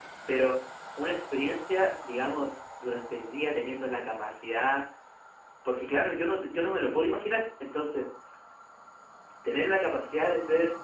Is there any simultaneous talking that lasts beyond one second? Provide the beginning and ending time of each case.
none

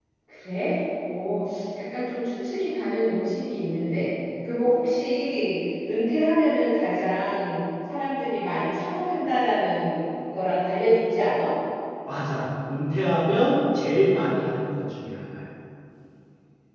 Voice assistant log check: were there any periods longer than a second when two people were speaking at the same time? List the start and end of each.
none

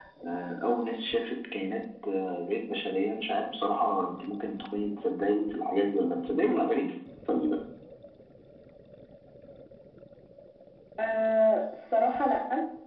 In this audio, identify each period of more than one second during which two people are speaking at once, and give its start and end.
none

